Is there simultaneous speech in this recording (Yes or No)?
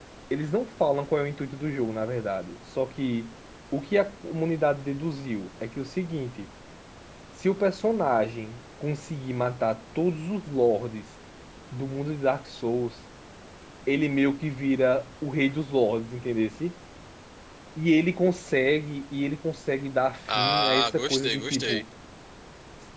Yes